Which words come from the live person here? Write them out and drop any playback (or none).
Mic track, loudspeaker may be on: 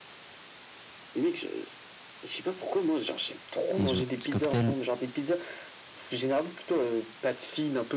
et genre petit cocktail